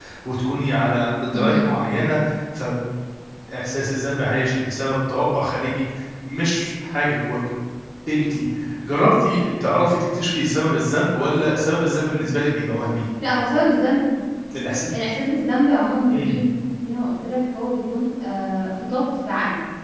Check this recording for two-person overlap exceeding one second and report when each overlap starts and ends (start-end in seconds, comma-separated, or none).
none